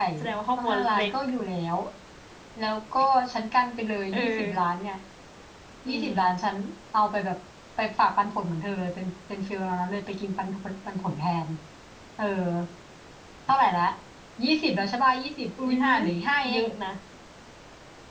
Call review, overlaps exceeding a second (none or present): none